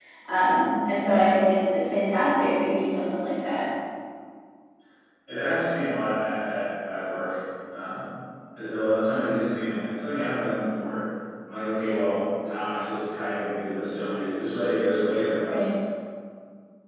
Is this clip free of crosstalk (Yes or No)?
Yes